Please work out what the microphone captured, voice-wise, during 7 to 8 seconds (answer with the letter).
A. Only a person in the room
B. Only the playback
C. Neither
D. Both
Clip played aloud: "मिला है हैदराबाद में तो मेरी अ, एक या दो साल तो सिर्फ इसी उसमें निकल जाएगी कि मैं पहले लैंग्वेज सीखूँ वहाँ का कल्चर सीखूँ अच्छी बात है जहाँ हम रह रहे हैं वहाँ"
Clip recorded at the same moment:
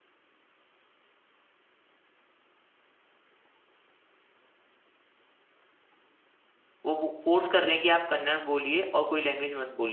A